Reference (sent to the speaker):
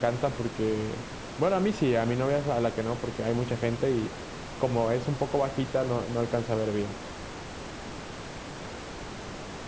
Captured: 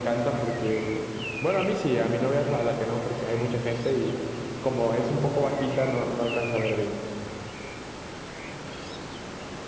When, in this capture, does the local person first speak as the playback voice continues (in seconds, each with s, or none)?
none